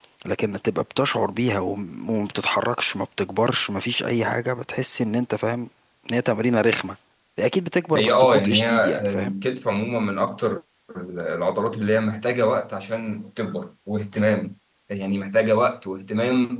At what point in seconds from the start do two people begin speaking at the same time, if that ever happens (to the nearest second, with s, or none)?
8 s